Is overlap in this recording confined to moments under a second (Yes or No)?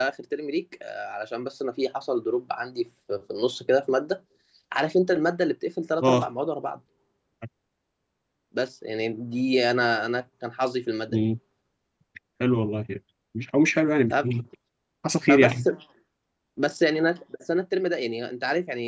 Yes